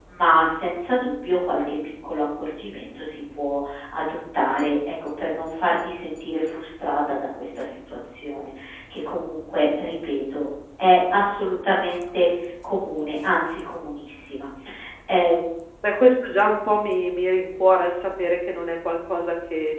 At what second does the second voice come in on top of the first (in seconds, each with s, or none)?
none